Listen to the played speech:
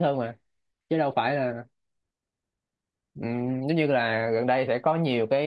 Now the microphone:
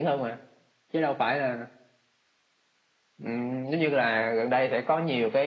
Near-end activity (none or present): none